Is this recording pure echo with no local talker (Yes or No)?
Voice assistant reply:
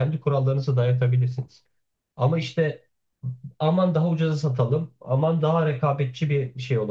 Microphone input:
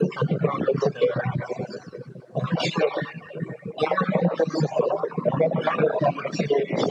Yes